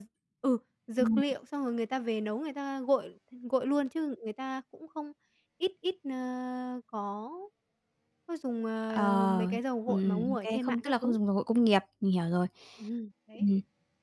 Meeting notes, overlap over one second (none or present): present